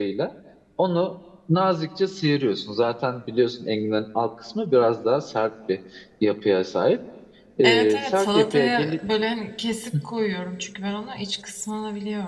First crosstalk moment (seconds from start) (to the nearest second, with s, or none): 8 s